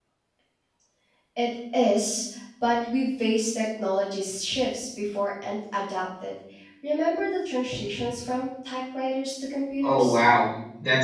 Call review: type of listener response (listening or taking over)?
taking over